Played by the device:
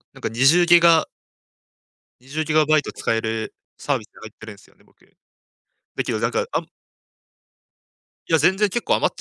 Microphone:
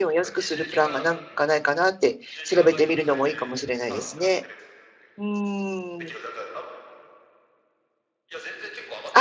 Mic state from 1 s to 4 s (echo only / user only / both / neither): both